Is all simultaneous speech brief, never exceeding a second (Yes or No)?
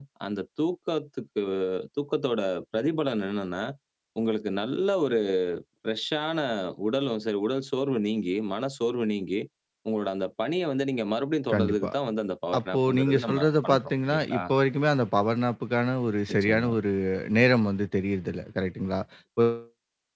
No